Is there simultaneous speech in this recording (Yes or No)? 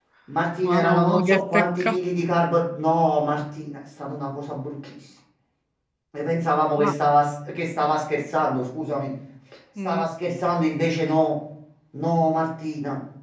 Yes